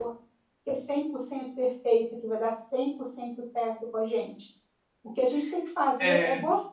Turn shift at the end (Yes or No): No